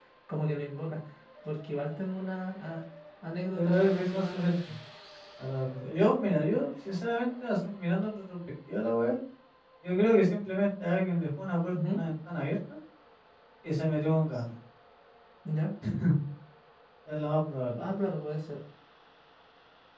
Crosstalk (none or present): present